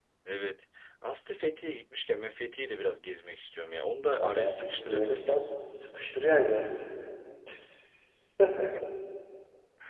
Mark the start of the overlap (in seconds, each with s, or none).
4.1 s